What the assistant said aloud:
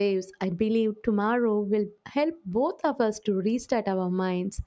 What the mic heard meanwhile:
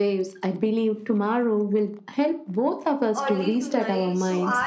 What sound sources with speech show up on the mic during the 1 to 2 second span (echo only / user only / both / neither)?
echo only